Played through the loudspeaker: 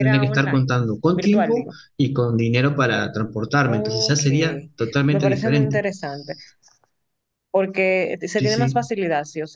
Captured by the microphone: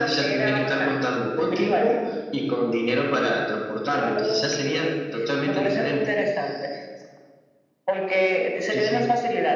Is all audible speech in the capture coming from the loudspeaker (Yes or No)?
Yes